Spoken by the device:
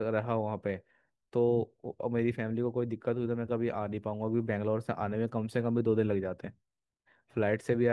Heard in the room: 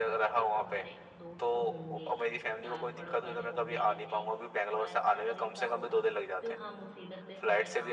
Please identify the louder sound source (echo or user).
echo